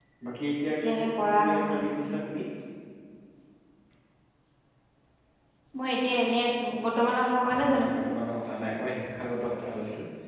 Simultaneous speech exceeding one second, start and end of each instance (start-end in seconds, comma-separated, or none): 0.7-2.1